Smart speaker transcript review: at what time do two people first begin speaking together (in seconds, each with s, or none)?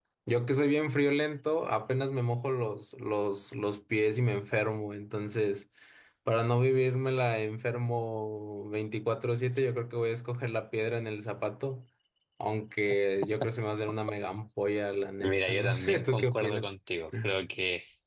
15.2 s